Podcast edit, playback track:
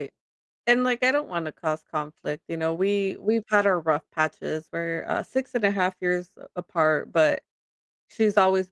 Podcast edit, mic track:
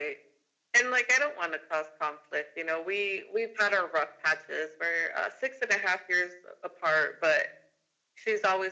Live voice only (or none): none